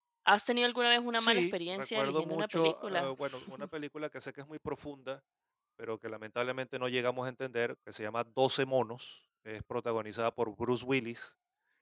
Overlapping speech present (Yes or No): Yes